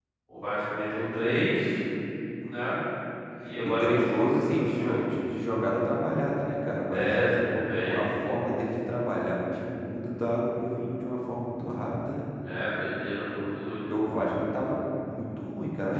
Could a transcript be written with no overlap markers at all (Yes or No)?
No